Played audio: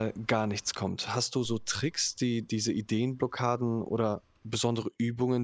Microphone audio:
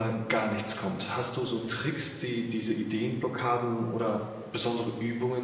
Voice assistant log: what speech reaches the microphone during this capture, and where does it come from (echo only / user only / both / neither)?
echo only